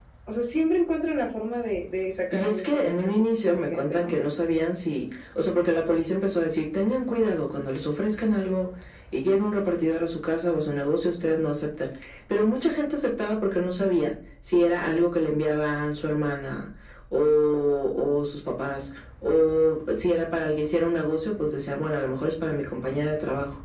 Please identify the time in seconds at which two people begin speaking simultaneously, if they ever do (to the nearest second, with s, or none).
2 s